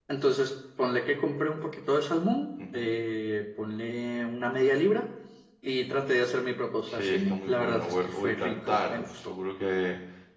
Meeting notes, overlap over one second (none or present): present